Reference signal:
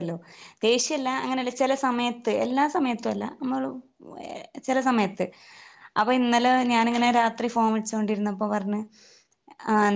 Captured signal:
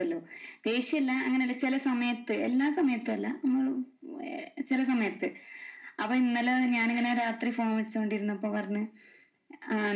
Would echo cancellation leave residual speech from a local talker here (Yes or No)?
No